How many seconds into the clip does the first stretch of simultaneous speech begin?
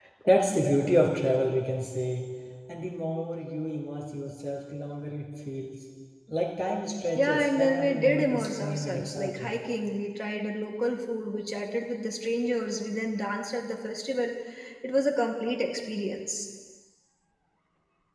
7 s

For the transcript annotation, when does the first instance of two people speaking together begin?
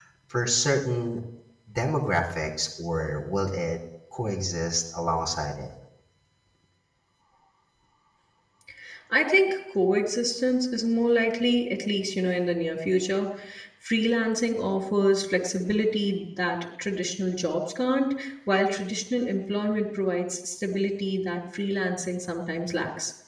none

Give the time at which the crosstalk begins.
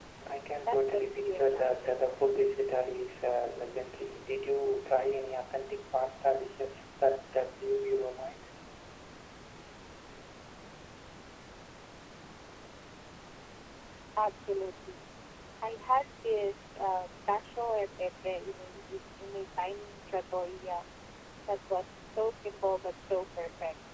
1 s

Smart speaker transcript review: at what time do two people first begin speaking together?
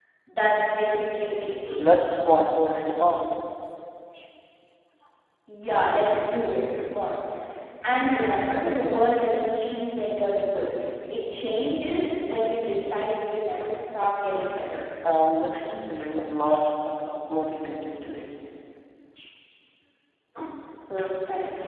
none

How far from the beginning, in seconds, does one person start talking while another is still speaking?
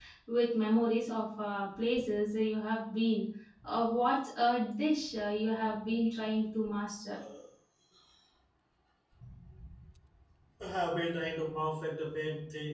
none

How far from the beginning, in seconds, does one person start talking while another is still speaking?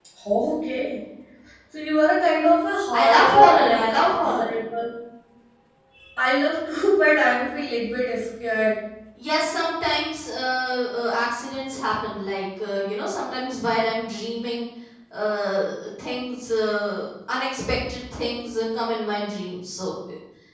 3 s

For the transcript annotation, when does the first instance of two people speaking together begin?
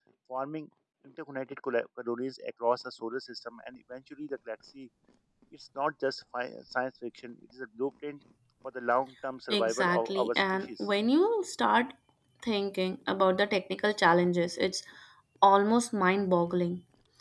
10 s

